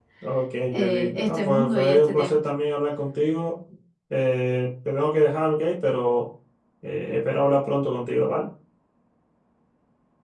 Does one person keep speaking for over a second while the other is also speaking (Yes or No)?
Yes